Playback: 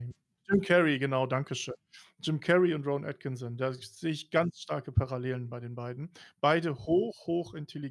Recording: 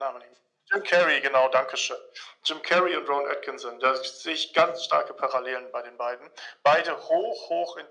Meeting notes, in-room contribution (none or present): none